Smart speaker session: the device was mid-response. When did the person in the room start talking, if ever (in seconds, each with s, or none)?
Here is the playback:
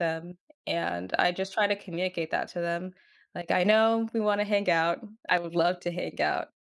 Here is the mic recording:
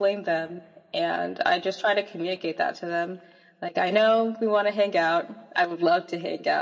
none